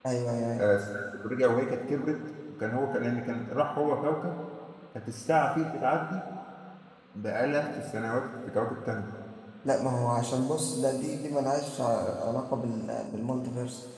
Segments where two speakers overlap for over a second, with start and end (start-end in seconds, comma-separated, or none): none